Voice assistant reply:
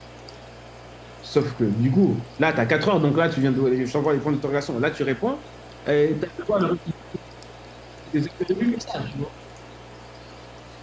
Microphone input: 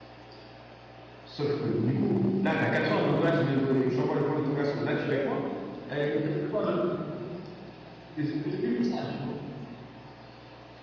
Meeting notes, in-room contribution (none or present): present